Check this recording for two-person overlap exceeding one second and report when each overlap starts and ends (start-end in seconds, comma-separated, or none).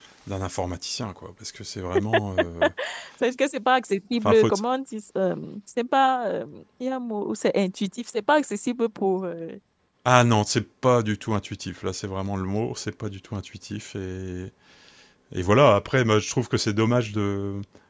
none